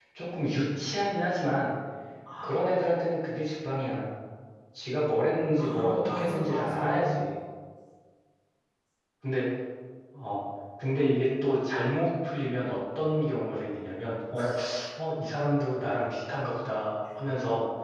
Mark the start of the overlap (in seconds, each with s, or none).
5.6 s